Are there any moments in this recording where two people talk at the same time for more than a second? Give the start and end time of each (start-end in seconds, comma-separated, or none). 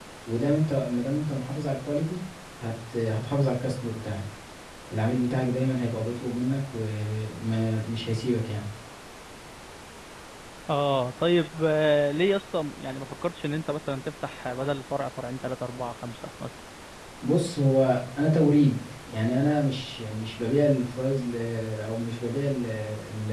none